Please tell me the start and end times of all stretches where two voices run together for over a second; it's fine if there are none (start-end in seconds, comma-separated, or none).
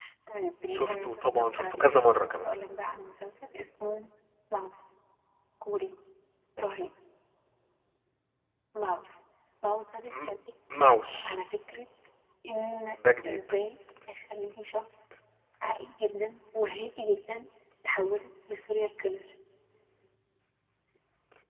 0.7-1.9